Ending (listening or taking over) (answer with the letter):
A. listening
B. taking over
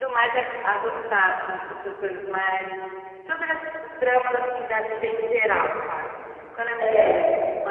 A